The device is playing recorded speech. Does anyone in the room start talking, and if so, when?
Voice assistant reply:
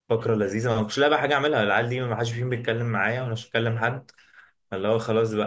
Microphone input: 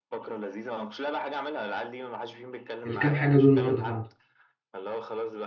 2.8 s

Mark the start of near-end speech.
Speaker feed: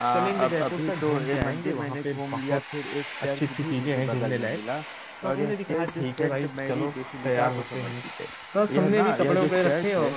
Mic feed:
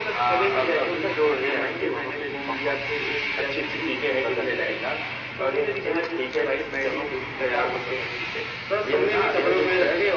none

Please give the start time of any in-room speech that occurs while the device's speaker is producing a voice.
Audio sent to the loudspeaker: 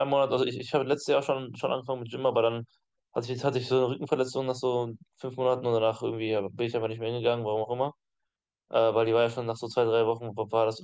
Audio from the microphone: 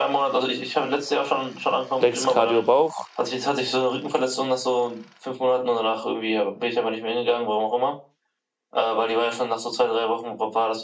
2.0 s

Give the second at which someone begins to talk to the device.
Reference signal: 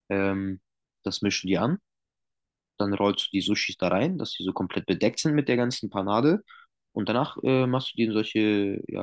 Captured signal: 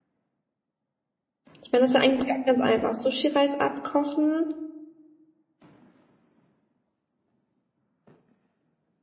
1.6 s

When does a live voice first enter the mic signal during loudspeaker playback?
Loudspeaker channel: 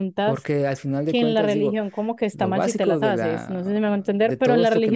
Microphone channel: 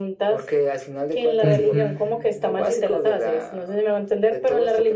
1.4 s

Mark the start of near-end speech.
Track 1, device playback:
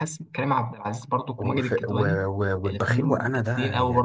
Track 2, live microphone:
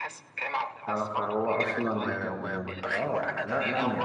0.9 s

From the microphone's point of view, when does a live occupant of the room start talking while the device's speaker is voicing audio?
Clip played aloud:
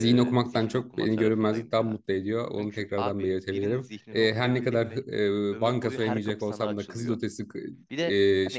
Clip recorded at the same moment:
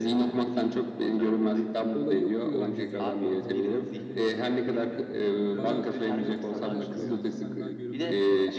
1.9 s

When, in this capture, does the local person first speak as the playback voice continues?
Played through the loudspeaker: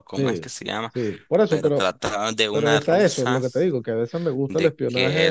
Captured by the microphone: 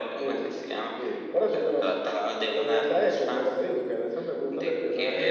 none

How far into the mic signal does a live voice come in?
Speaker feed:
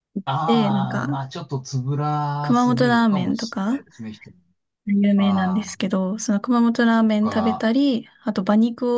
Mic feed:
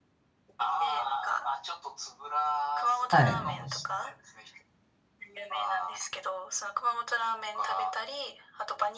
3.1 s

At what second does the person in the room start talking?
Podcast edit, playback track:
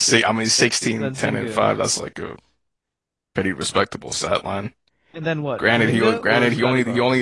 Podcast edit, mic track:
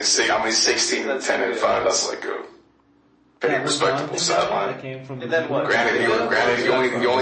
3.4 s

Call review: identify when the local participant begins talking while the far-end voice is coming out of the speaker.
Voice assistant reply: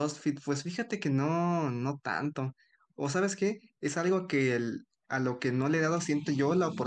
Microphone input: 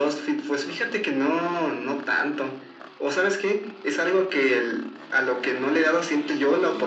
none

